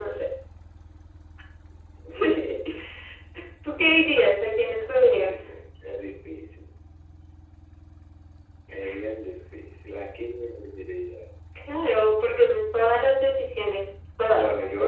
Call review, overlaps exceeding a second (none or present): none